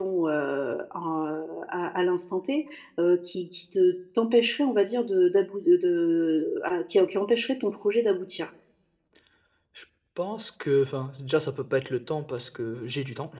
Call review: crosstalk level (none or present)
none